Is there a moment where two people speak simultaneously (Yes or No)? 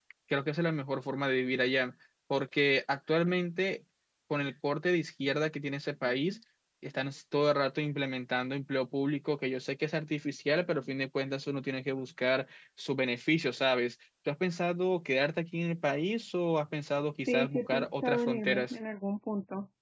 Yes